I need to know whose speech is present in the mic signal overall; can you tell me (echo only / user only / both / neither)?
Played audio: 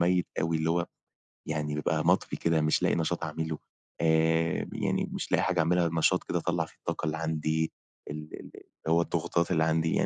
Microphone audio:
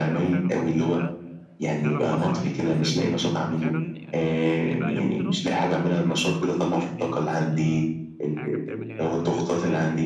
both